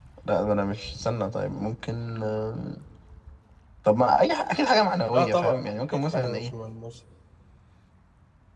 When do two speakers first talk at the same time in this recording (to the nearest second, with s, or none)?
5 s